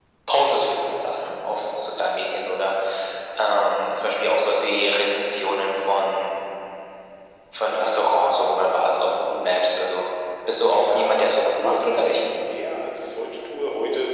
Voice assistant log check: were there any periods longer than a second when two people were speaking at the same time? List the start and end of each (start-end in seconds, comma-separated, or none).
10.7-12.2